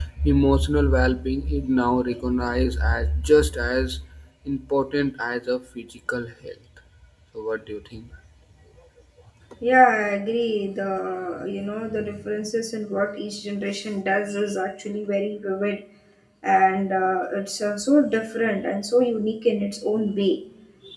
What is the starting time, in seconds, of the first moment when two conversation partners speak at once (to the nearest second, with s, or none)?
none